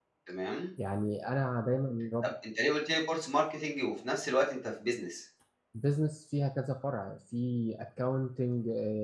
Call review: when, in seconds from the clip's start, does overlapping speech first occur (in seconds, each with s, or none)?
none